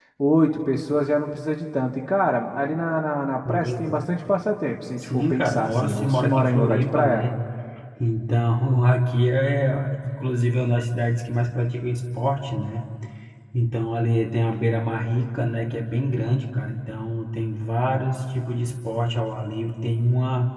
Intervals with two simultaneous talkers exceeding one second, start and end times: 5.0-7.3

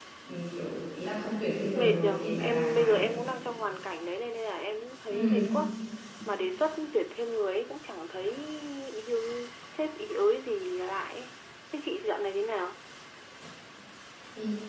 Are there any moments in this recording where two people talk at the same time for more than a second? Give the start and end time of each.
1.7-3.0

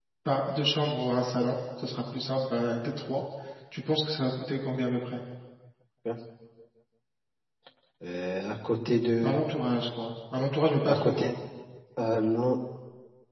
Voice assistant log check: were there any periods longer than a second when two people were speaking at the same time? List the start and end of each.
none

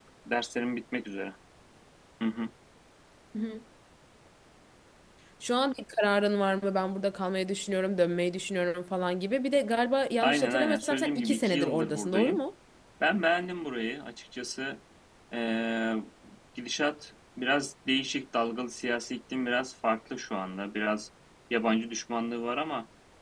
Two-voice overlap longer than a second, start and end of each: 10.2-12.4

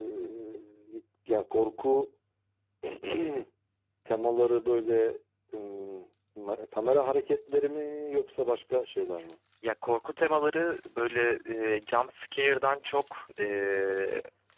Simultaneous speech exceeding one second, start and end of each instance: none

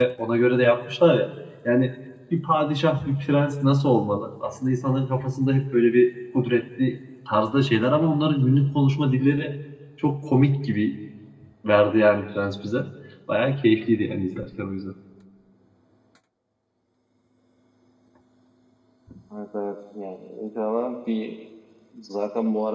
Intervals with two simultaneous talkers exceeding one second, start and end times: none

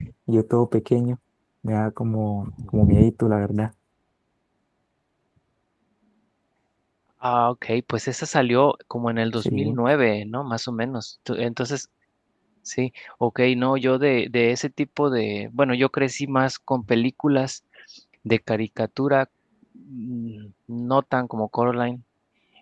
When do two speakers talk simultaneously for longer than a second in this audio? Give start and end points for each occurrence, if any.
none

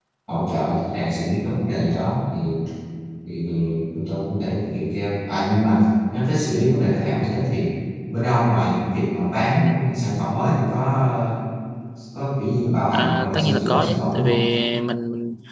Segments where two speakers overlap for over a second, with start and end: 12.9-14.4

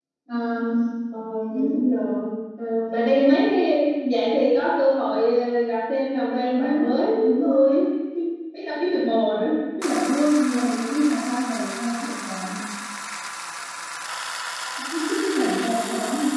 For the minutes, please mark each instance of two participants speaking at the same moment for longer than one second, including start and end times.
6.5-7.8

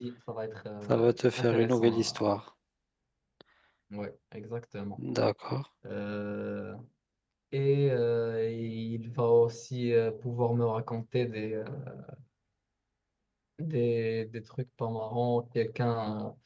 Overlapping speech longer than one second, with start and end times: 0.9-2.2

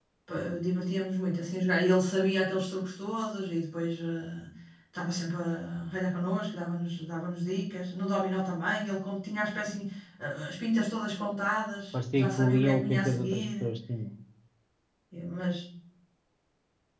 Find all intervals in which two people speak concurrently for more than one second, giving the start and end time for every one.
12.1-13.6

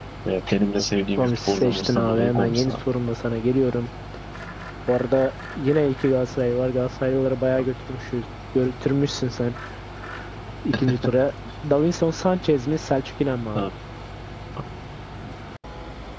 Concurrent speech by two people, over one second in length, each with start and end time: 1.2-2.8

